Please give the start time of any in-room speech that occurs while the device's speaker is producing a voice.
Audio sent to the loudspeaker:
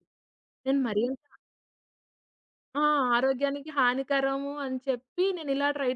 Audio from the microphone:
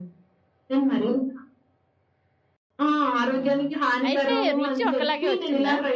3.4 s

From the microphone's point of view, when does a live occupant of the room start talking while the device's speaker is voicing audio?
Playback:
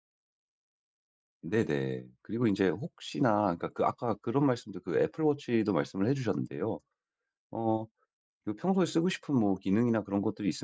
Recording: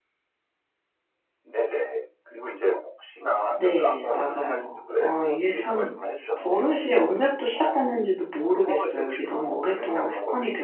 3.5 s

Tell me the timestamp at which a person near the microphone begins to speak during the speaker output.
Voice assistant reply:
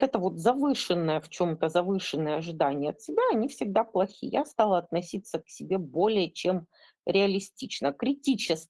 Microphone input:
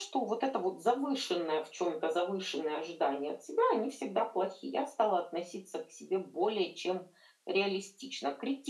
none

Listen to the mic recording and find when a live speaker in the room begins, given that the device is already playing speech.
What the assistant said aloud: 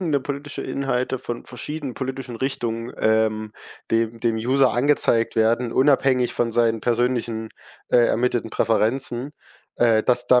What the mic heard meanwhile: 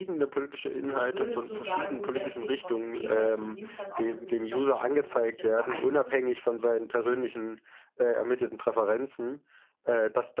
0.8 s

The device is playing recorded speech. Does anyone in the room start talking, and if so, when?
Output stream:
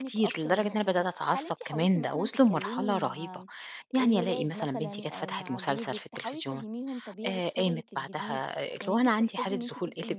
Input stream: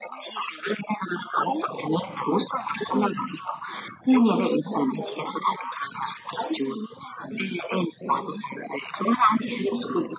none

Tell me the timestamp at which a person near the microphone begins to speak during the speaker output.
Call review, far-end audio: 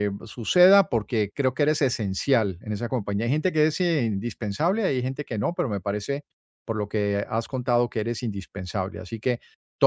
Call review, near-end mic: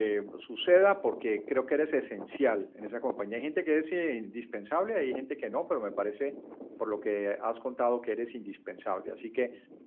none

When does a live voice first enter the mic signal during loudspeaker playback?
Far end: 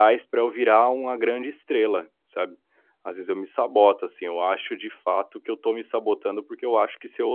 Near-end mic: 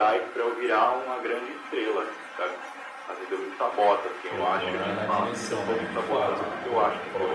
4.3 s

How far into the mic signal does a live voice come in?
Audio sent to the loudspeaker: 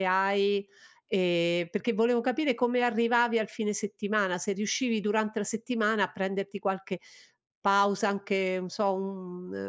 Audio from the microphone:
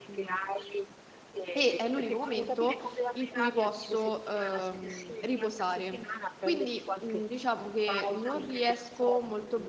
1.5 s

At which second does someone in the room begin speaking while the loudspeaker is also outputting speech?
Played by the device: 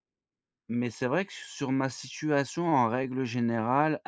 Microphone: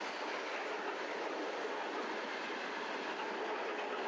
none

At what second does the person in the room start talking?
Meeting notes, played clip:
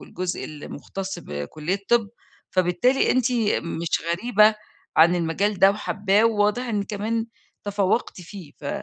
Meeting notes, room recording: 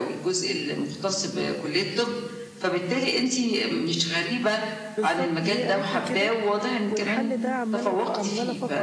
5.0 s

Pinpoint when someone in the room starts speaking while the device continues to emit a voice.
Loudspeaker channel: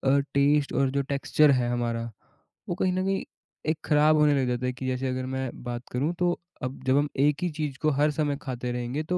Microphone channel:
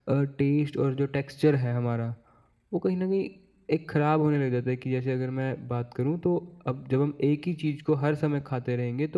none

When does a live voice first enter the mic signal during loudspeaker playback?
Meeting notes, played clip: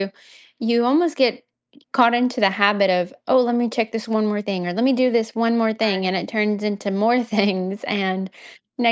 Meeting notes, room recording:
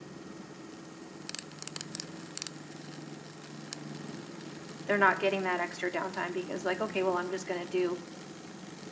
4.9 s

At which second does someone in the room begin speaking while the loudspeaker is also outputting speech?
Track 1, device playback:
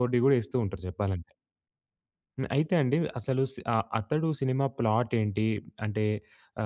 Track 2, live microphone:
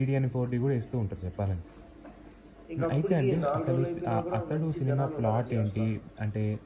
2.8 s

